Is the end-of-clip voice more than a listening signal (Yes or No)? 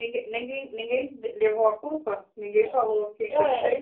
Yes